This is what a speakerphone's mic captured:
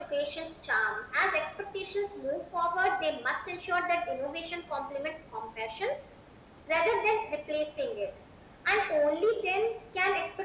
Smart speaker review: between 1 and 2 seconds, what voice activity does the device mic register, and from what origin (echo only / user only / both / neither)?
echo only